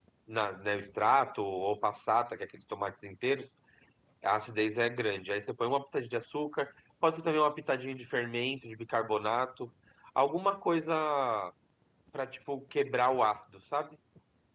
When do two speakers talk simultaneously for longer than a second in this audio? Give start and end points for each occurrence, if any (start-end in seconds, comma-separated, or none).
none